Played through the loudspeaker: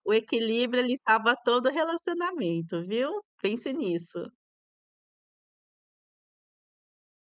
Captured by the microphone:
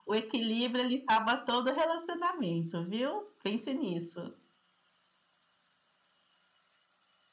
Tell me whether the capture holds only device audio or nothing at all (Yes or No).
Yes